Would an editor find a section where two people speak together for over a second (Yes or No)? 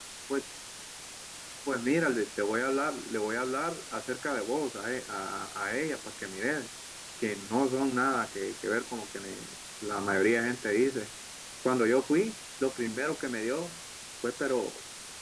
No